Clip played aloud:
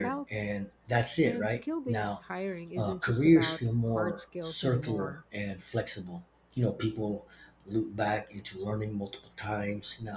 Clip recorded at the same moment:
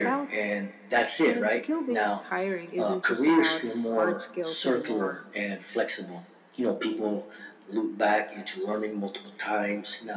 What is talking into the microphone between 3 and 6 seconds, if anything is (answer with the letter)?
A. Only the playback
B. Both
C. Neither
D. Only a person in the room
A